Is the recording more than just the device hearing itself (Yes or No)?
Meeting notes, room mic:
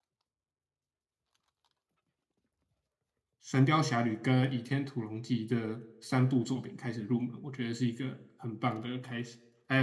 Yes